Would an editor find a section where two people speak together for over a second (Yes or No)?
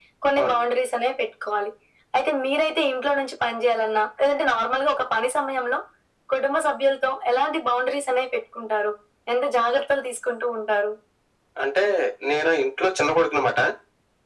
No